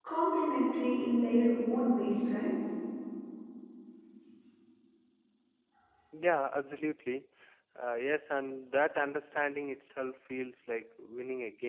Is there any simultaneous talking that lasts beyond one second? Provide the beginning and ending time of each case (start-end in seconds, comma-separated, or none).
none